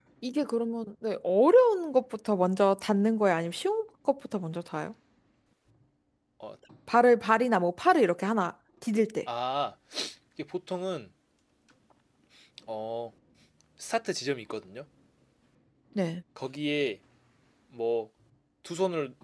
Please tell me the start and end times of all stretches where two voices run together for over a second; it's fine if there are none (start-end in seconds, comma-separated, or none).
none